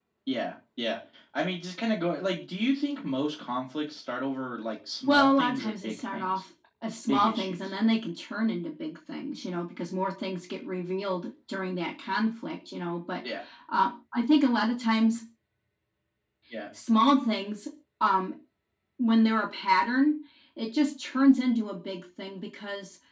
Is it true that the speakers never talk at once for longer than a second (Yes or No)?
No